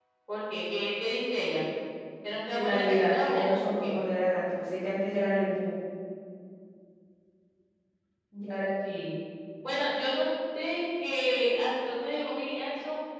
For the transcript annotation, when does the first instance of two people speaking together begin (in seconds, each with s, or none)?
2.5 s